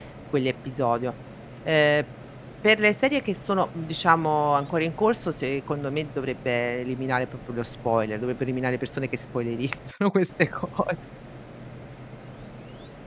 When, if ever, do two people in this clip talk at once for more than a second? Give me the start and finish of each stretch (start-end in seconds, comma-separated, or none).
none